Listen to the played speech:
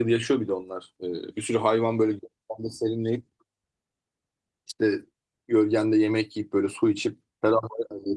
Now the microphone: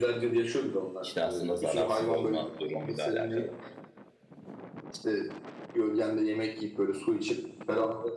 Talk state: both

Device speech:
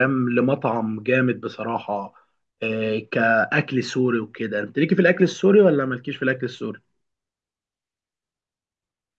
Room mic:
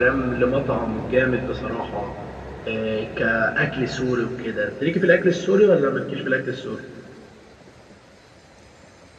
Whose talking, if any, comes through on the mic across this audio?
echo only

